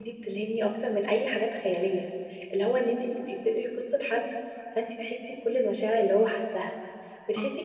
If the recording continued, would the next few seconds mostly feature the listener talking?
No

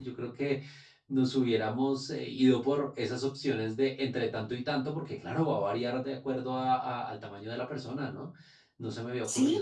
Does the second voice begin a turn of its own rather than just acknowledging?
Yes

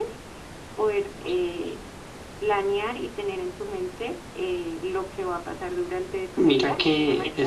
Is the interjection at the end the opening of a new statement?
Yes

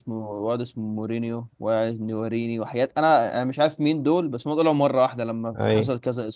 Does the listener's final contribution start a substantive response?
No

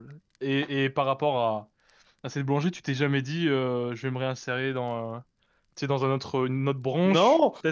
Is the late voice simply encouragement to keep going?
No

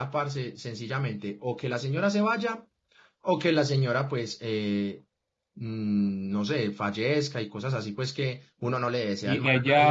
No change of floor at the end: No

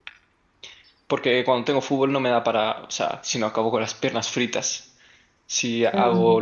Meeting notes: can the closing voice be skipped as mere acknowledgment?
Yes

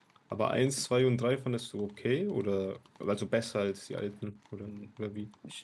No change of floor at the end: No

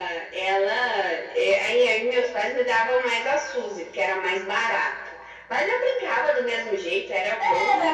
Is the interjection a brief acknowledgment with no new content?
No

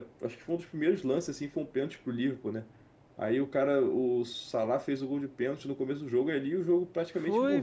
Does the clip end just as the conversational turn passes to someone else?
Yes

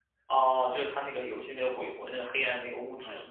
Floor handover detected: Yes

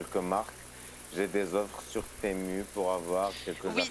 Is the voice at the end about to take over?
Yes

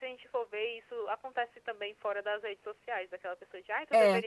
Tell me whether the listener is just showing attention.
Yes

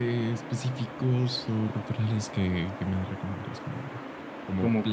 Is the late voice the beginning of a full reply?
No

